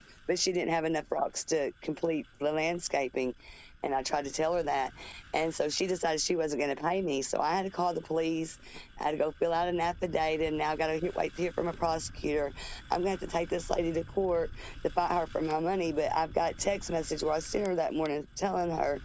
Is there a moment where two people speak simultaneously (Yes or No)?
No